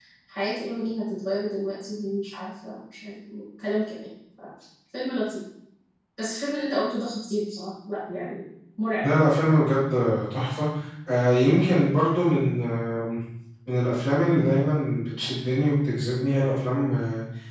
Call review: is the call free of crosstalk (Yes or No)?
Yes